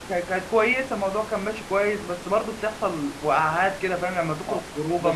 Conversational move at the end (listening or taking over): taking over